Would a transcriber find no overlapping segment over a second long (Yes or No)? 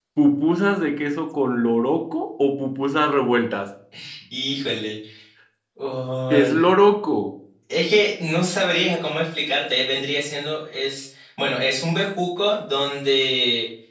Yes